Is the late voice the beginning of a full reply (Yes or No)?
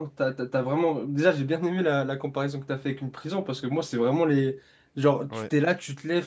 No